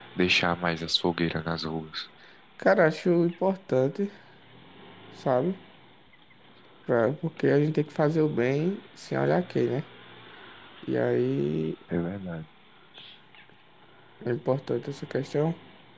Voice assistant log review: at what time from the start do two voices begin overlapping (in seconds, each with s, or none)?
none